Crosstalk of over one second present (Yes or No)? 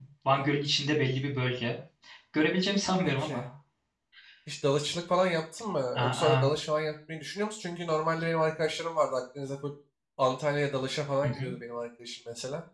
No